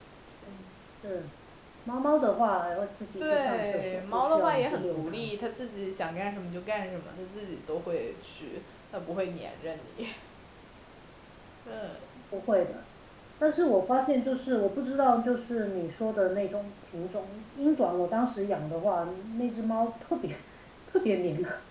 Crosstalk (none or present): present